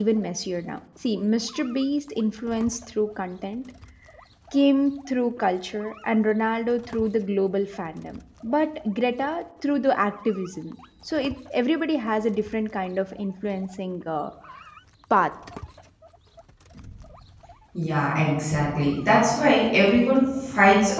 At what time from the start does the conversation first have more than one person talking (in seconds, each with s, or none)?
none